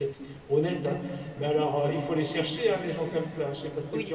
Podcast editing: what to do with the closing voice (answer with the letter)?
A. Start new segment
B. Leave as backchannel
A